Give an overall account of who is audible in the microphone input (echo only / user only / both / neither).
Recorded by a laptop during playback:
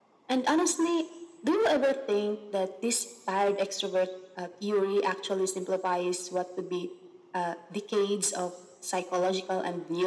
echo only